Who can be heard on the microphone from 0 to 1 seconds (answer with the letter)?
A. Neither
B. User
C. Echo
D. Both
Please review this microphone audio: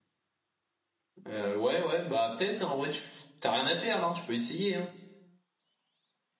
A